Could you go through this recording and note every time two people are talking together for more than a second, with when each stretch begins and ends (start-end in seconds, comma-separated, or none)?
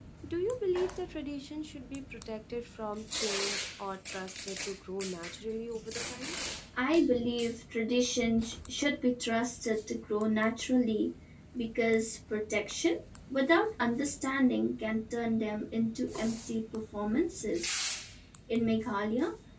none